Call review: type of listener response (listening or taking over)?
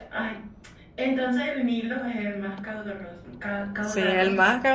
taking over